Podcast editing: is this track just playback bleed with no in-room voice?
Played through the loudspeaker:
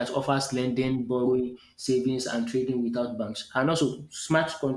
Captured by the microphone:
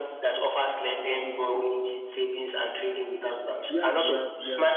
No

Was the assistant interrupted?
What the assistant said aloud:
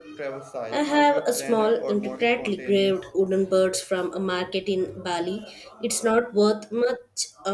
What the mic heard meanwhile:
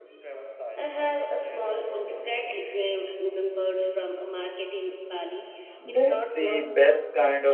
Yes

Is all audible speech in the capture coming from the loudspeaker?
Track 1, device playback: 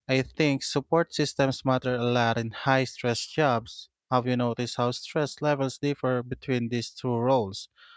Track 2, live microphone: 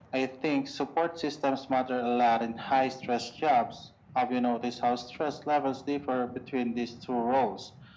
Yes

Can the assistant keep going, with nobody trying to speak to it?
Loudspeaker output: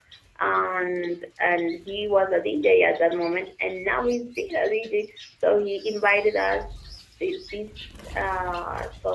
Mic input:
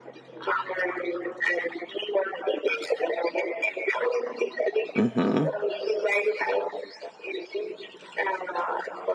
No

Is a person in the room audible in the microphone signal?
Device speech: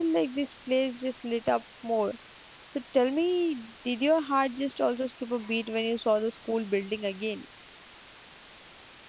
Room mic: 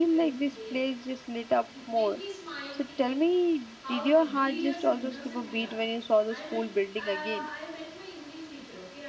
Yes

